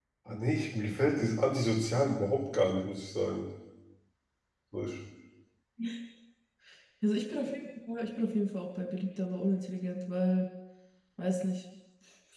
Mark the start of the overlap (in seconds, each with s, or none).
none